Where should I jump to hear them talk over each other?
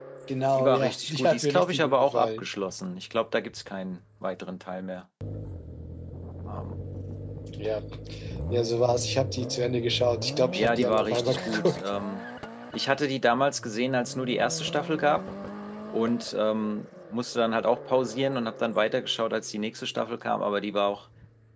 0.5 s

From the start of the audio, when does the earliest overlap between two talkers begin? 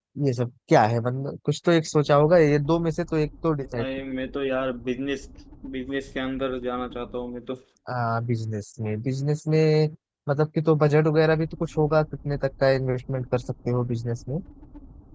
none

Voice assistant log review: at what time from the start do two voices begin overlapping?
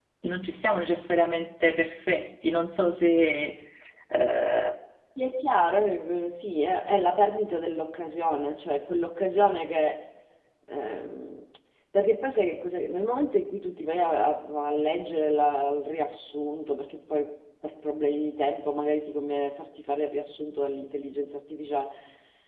none

